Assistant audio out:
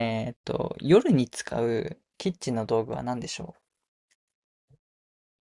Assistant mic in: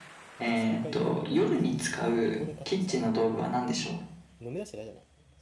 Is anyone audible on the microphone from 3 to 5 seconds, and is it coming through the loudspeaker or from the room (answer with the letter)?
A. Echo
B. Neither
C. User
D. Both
D